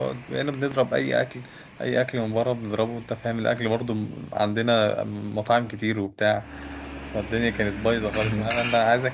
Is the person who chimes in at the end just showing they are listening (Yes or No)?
Yes